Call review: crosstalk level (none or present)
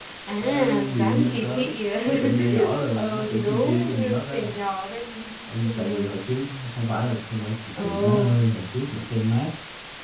present